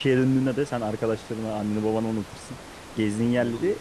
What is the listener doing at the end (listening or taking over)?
listening